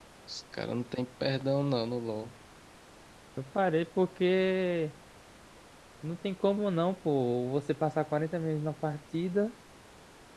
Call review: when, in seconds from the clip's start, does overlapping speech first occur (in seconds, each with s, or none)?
none